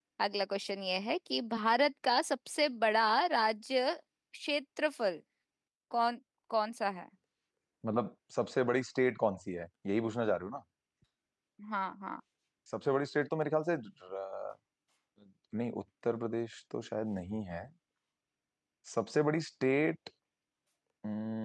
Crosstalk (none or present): none